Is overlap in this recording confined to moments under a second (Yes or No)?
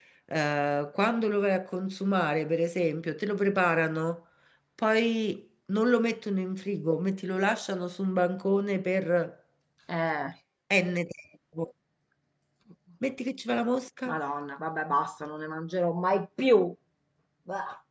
Yes